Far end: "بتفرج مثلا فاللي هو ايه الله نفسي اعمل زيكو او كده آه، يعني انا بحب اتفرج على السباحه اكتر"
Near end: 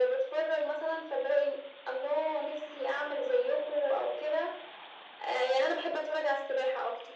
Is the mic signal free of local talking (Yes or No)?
Yes